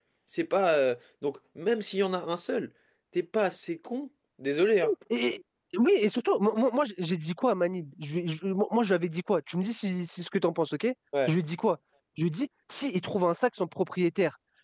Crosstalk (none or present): none